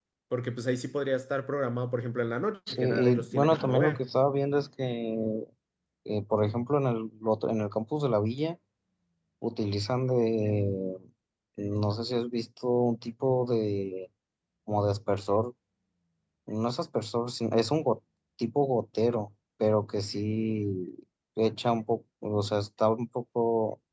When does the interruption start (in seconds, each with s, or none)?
2.7 s